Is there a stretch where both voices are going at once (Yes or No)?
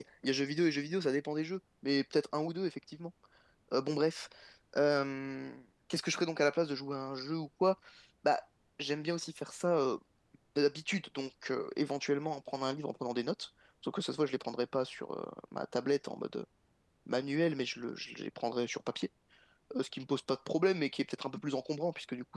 No